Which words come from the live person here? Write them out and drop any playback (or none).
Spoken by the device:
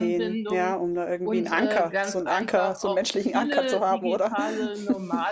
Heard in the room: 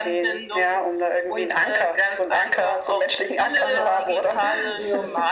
aber ich äh,